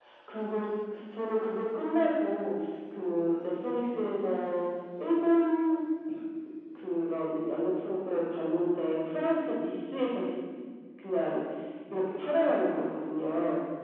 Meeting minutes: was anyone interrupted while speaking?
No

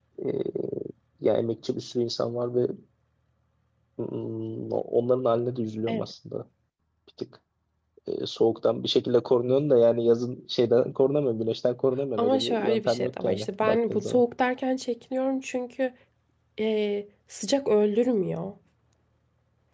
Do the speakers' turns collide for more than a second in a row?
Yes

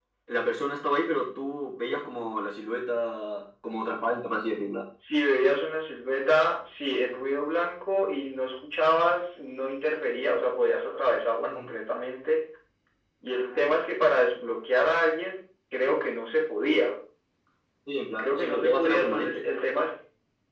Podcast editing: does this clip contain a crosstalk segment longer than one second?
Yes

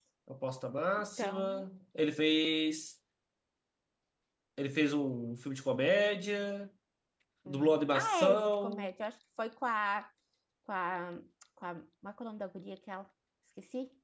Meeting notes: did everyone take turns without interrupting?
No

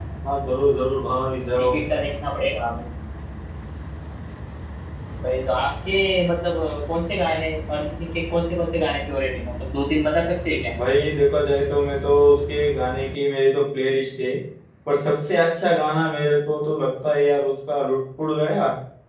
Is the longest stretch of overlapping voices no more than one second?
Yes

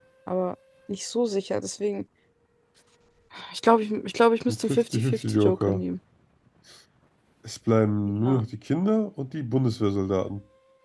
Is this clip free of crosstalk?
No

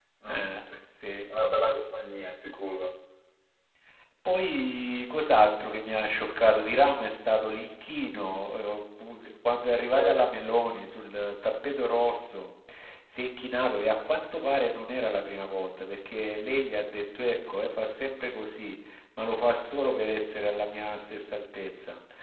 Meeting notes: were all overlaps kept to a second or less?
Yes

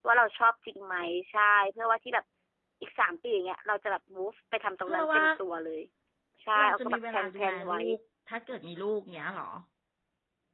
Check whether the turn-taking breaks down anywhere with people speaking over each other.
Yes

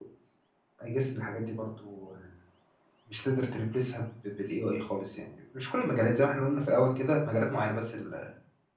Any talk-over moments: No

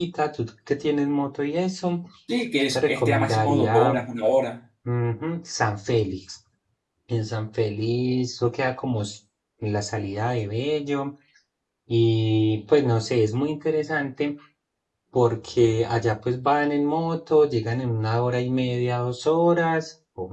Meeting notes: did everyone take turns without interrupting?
No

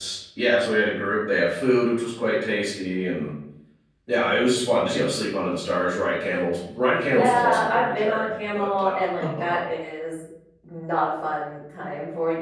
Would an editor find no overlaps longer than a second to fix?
No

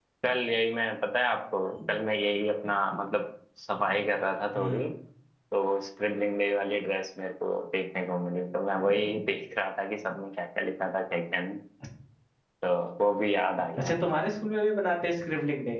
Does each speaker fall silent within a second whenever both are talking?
Yes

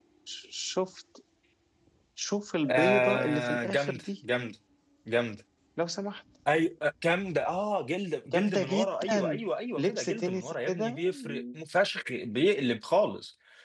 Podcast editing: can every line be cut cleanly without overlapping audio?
No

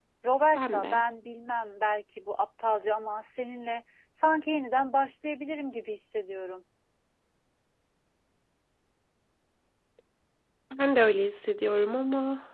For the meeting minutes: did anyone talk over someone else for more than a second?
No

